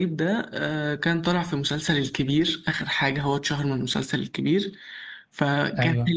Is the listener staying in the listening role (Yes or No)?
Yes